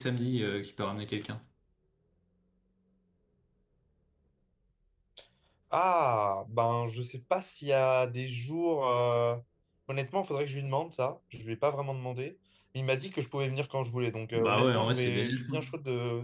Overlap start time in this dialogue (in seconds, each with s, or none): 14.3 s